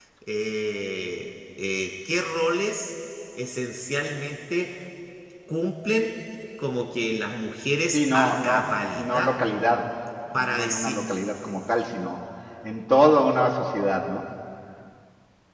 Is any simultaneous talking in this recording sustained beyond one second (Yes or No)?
Yes